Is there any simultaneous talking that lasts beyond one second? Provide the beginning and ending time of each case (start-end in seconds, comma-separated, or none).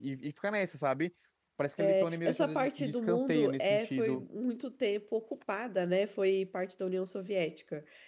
1.8-4.2